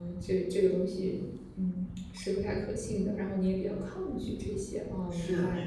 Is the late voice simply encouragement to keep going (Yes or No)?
No